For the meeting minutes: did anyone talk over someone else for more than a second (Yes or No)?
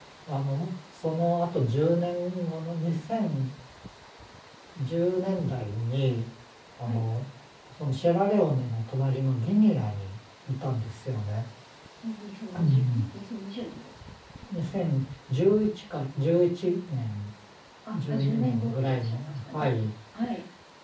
Yes